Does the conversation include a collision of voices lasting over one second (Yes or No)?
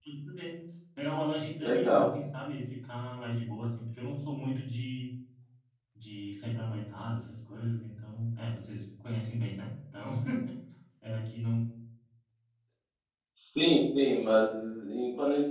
No